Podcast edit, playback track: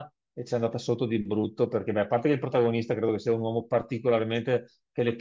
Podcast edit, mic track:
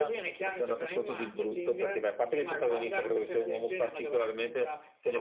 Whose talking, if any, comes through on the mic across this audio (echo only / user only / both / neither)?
both